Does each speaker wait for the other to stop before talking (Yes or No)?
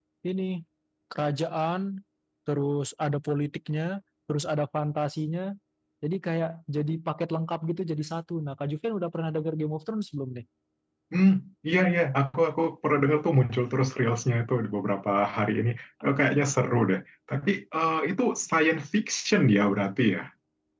Yes